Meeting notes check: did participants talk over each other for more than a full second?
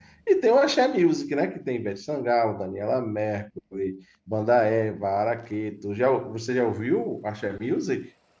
No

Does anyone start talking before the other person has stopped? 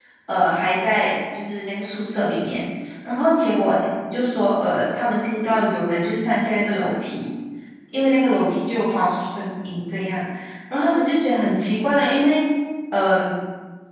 No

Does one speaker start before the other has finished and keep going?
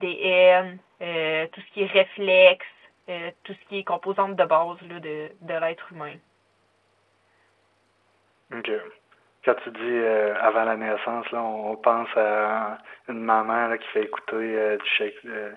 No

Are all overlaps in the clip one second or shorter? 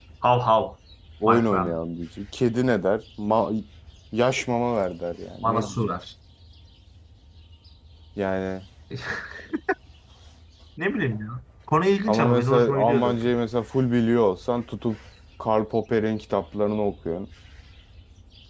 No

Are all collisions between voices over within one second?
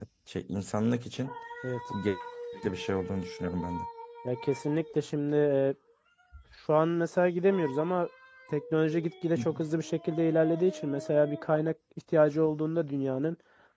Yes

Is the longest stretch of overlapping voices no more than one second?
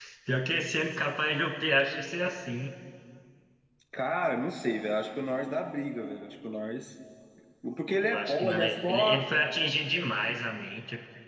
No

